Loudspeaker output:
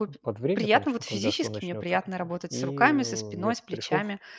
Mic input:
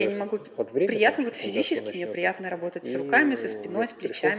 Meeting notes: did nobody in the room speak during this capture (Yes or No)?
Yes